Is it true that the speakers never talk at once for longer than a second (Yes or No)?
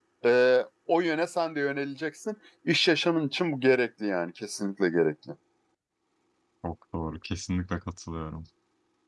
Yes